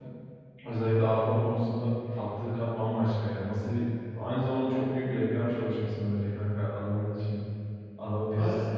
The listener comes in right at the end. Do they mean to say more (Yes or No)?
Yes